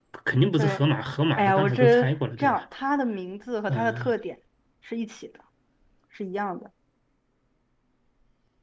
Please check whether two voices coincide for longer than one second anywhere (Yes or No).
Yes